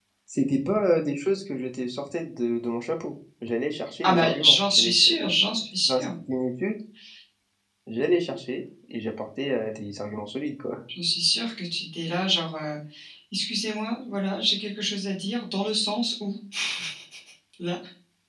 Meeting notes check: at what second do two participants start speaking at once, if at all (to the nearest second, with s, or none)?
4 s